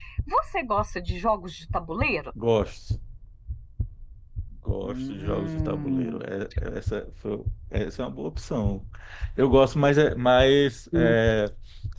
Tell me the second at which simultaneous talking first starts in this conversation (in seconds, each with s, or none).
4.8 s